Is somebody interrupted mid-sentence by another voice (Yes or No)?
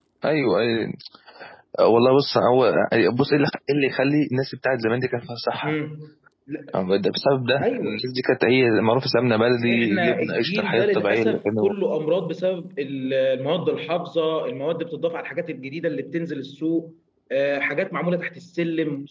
Yes